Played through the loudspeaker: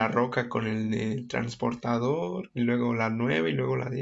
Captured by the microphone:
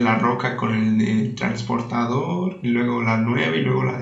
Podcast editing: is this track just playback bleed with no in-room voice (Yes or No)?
Yes